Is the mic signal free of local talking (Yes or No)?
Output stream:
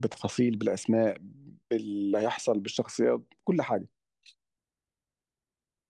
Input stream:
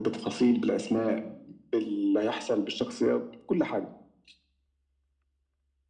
Yes